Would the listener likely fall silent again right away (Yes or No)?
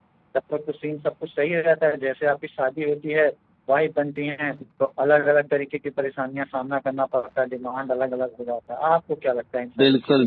No